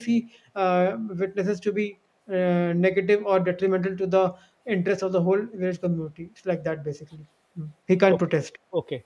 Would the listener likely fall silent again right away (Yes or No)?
No